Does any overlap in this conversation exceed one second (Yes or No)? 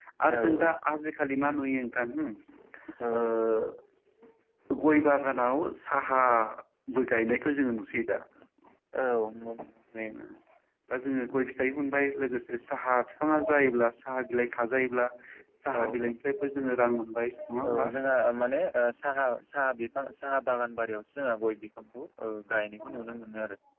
No